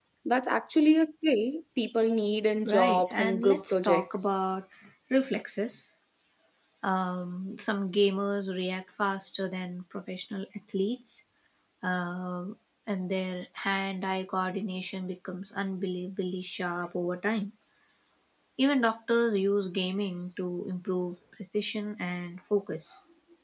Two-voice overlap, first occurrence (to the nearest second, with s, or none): 3 s